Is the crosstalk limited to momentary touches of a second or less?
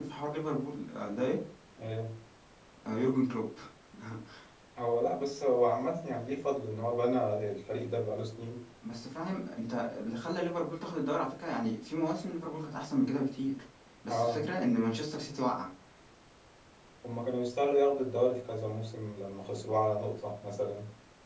Yes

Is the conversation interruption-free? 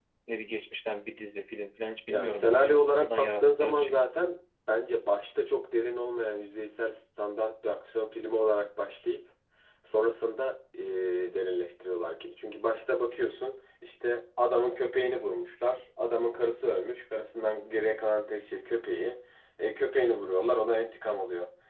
No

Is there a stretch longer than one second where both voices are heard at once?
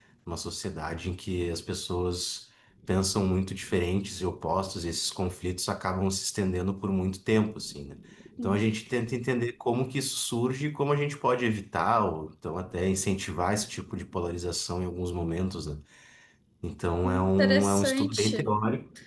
Yes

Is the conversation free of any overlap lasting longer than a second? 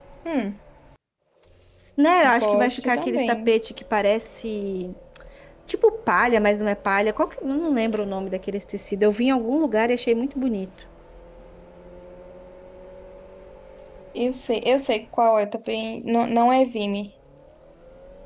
No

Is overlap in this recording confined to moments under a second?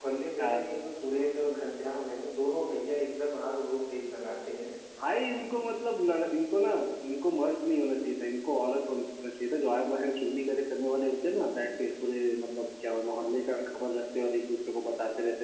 Yes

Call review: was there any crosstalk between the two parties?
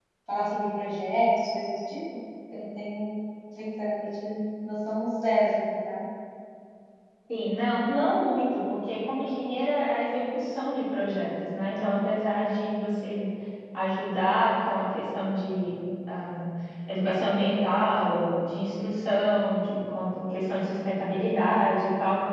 No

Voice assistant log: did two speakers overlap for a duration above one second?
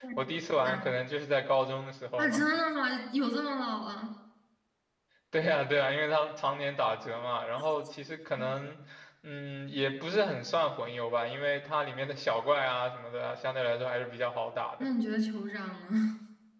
No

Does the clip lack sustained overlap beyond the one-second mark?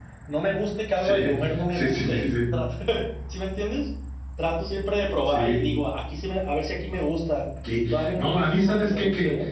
No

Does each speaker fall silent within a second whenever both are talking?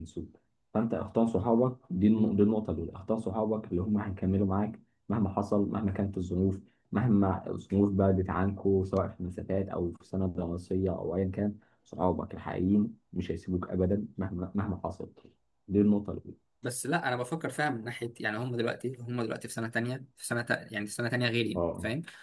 Yes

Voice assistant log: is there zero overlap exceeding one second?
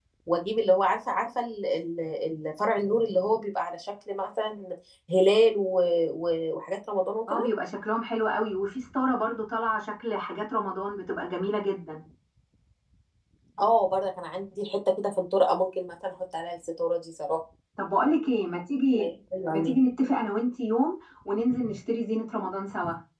Yes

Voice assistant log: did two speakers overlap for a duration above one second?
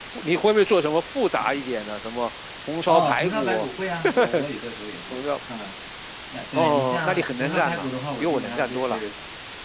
Yes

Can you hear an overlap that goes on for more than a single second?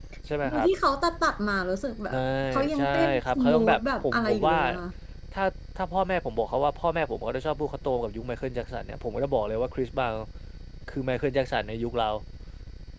Yes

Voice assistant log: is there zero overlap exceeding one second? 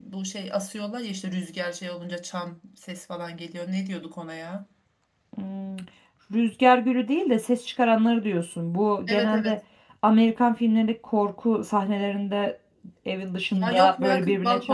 No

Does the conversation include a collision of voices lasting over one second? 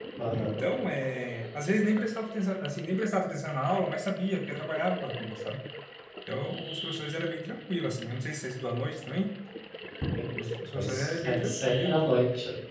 Yes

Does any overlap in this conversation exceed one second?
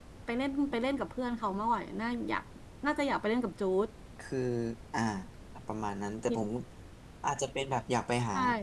No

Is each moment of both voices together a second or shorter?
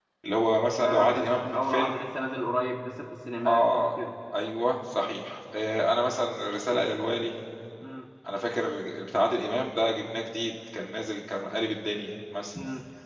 No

